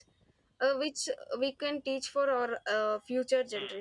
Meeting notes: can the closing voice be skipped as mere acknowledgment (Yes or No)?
No